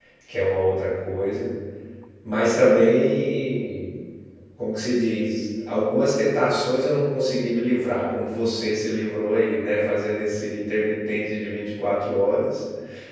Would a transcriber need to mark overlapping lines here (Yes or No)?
No